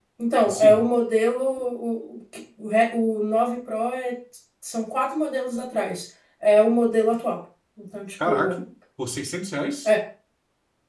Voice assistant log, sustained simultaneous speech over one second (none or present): none